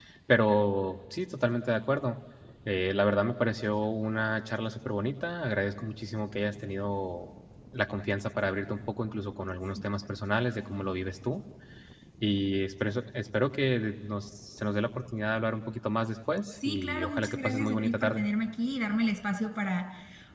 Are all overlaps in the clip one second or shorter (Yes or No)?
No